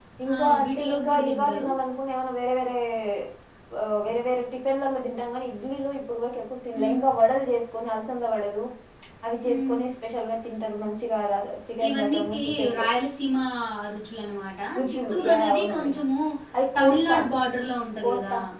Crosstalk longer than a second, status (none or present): present